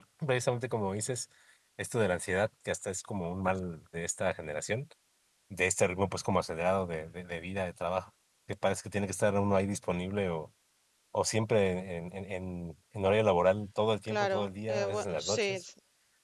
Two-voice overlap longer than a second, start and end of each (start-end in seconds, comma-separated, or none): 14.1-15.6